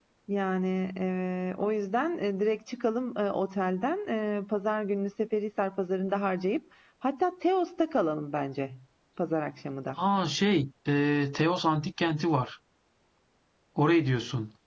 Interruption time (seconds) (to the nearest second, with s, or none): none